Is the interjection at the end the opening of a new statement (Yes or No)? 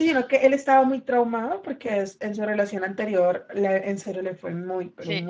Yes